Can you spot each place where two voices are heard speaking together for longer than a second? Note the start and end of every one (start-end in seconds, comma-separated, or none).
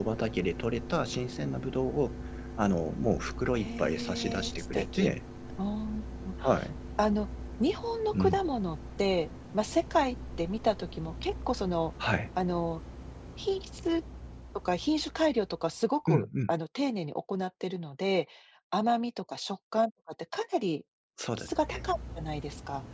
3.5-5.1